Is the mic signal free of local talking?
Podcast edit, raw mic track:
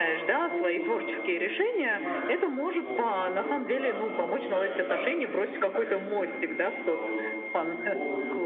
No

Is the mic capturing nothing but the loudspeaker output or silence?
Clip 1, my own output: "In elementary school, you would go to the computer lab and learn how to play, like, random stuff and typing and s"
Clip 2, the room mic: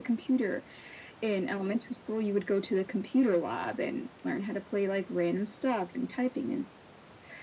Yes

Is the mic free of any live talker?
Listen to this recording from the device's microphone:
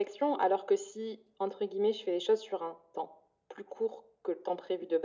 Yes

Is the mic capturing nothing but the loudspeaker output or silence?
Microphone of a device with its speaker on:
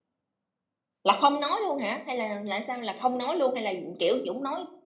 No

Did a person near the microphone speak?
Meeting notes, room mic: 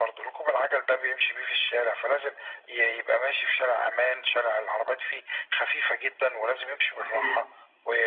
Yes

